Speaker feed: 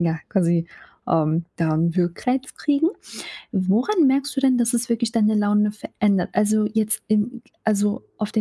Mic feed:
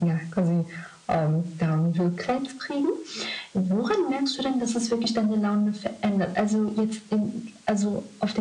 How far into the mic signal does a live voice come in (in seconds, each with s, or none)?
none